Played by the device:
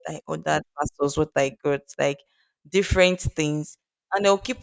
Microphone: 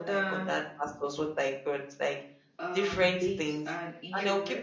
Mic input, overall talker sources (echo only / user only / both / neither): both